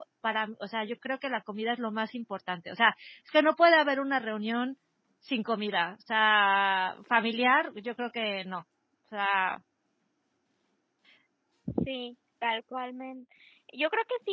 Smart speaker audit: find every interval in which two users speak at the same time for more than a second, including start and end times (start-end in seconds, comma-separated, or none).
none